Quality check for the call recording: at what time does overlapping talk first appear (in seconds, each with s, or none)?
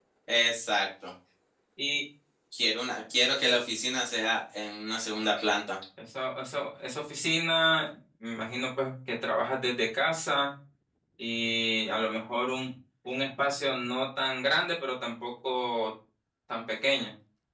none